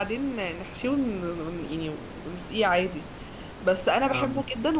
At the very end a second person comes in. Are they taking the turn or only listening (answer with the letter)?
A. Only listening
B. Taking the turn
A